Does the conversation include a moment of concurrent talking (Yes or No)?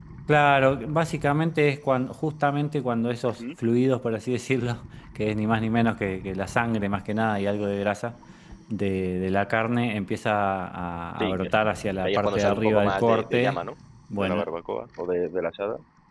Yes